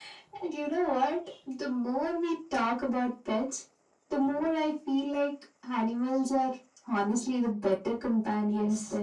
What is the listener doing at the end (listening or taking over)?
taking over